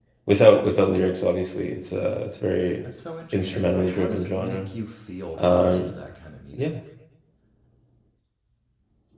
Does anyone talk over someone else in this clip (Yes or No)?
Yes